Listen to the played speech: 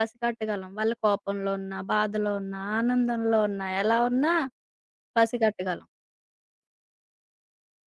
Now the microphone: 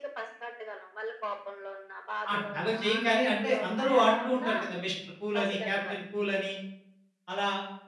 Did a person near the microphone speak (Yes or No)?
Yes